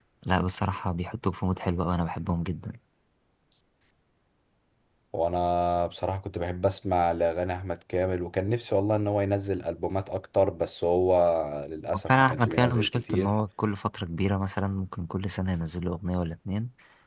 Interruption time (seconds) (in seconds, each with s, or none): 12.1 s